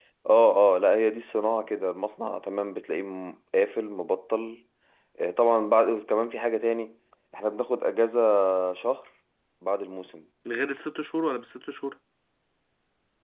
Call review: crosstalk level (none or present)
none